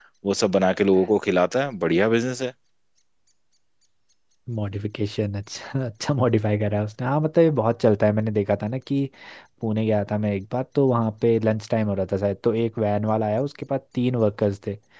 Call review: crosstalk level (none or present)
none